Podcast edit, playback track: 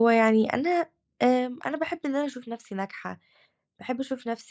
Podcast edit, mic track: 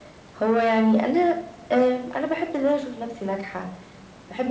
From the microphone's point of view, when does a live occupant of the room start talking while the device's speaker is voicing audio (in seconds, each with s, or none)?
none